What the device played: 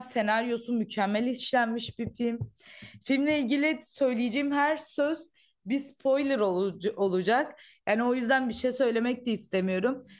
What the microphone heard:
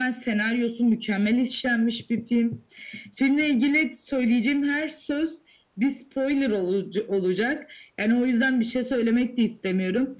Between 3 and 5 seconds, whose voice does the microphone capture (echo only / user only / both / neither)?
echo only